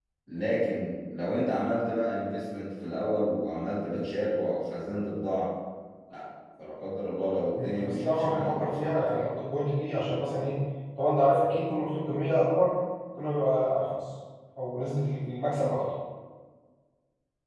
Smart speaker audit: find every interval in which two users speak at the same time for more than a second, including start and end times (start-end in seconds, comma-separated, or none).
7.6-9.3